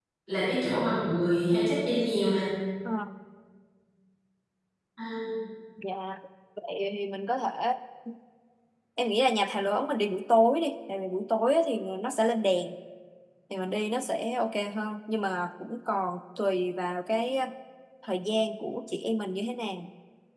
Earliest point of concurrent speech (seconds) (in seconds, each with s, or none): none